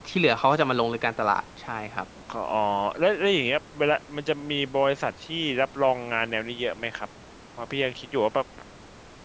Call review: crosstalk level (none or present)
none